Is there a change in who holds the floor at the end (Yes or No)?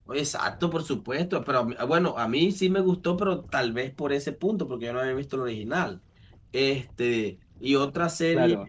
Yes